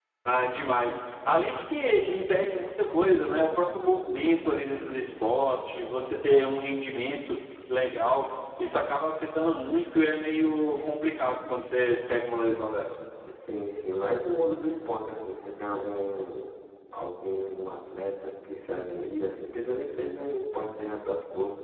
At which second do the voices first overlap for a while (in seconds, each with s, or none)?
none